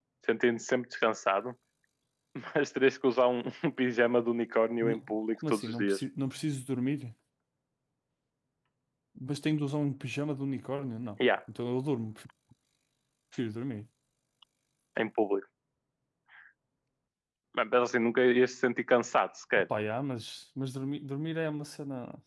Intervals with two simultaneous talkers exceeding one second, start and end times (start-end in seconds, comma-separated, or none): 4.8-6.0